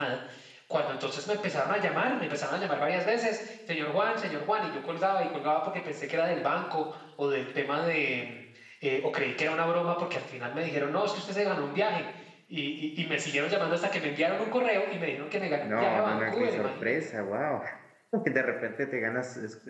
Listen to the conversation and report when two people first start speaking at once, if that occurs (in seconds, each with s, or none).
15.6 s